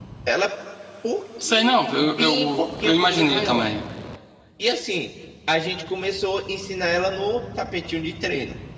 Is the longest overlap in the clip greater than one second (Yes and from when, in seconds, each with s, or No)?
Yes, from 1.4 s